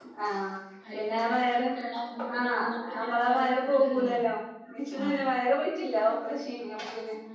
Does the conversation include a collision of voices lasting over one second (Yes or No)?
Yes